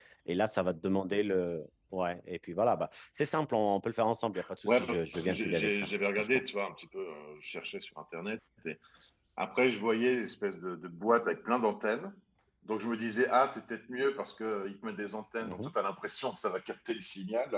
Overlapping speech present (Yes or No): Yes